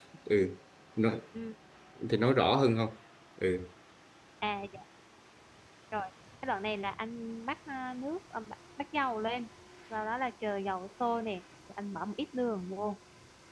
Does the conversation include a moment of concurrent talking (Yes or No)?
No